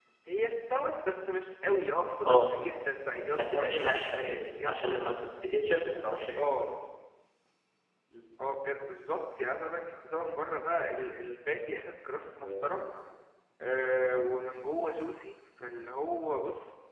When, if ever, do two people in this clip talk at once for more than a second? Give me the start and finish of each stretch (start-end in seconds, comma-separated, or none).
3.3-5.2